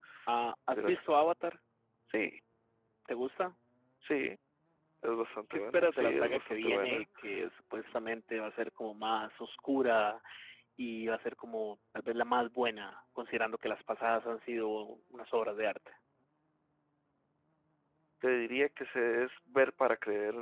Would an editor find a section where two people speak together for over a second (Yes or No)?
Yes